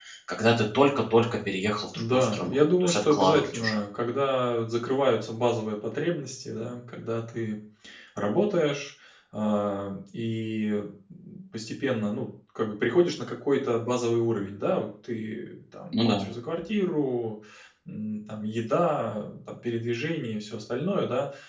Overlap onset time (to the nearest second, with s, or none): 2 s